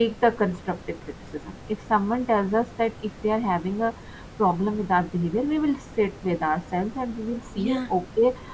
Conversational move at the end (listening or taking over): listening